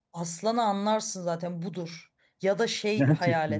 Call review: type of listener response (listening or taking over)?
listening